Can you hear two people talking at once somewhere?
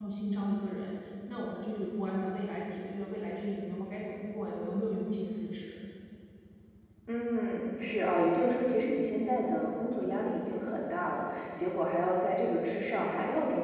No

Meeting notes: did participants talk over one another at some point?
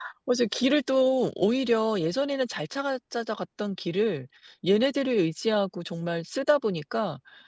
No

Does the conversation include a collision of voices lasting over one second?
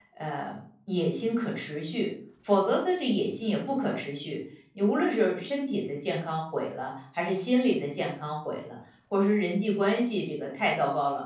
No

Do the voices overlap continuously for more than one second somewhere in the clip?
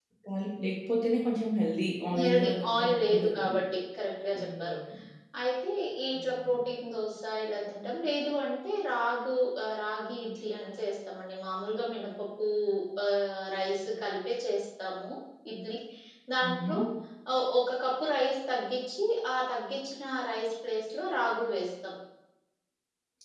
Yes, from 2.2 s

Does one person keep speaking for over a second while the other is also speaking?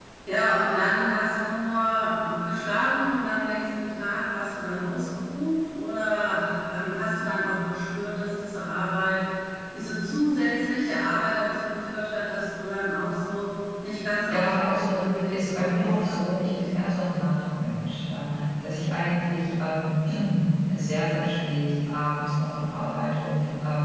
Yes, from 14.3 s

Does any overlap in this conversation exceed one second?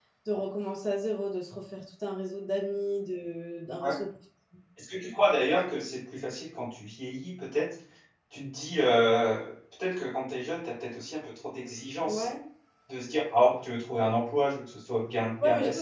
No

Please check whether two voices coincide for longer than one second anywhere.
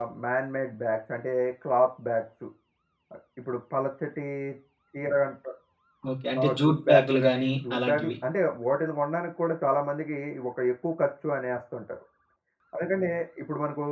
Yes, from 6.4 s

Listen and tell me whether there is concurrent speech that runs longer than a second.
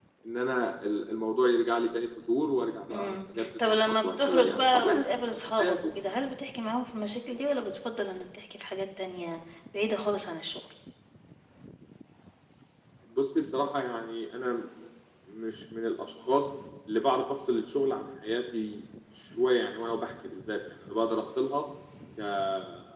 Yes, from 2.9 s

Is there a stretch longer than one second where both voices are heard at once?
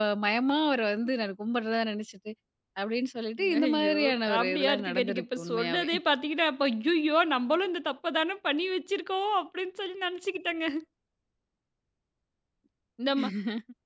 Yes, from 3.6 s

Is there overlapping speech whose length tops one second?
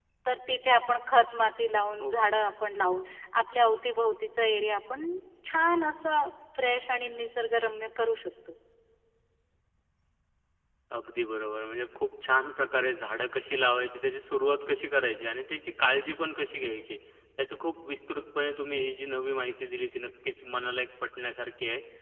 No

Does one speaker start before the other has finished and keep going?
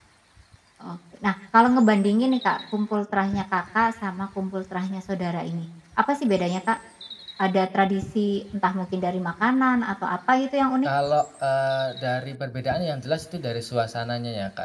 No

